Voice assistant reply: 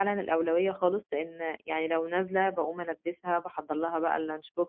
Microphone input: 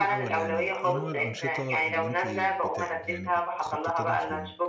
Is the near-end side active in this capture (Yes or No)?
Yes